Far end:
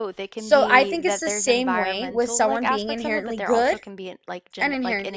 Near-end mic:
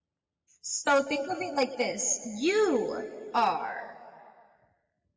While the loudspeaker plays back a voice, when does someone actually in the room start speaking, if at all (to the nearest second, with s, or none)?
1 s